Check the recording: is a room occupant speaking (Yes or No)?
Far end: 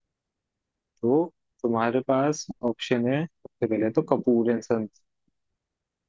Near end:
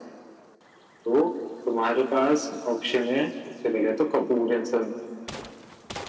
No